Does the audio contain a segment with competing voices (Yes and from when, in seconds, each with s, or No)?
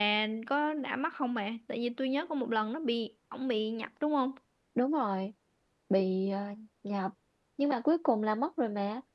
No